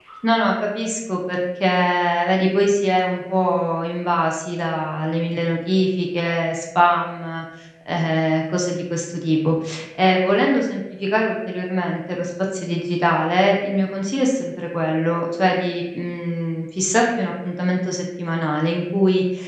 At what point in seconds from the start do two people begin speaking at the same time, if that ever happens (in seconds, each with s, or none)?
none